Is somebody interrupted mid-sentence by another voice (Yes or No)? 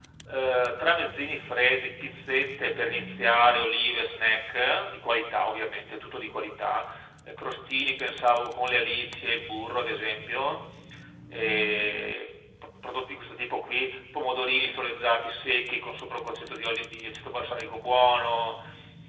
No